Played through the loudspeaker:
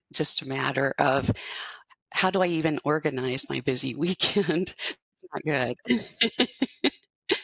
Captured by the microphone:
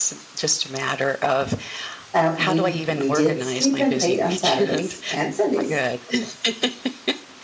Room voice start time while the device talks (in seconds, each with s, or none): 2.1 s